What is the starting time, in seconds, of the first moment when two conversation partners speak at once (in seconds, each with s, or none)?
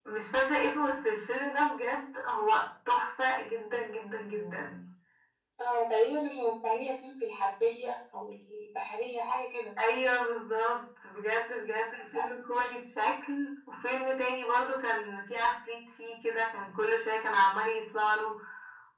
none